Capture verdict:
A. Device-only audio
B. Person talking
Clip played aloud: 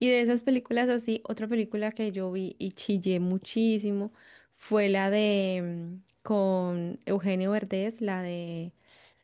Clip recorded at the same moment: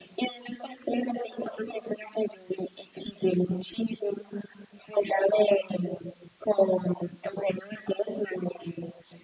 A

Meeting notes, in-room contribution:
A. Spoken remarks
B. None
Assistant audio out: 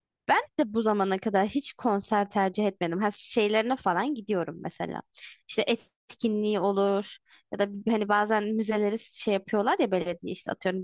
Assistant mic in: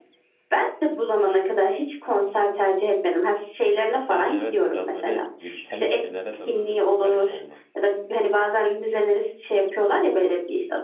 A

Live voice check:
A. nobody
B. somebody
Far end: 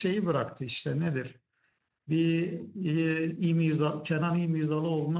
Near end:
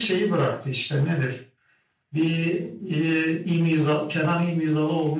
A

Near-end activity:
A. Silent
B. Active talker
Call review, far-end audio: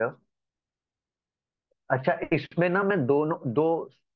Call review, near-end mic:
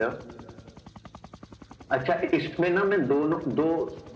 A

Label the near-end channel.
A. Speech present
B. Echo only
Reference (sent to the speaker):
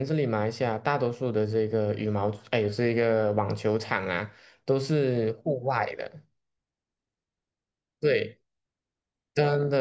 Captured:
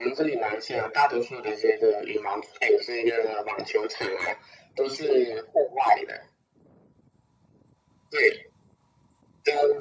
B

